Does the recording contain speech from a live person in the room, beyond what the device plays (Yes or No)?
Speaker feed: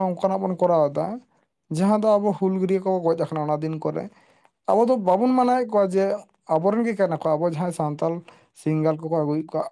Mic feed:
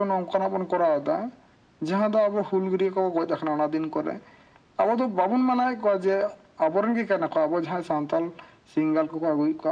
No